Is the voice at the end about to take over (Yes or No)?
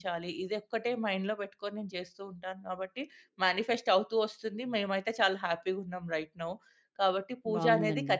No